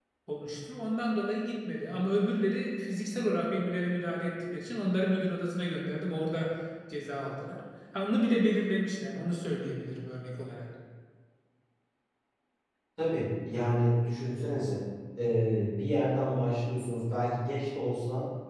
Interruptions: none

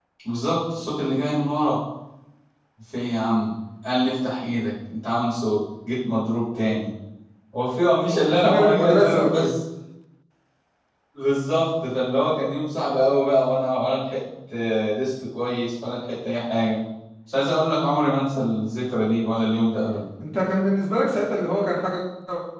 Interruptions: present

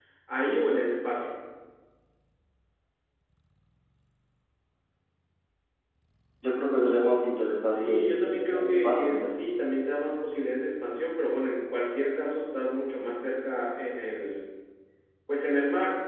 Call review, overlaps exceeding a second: present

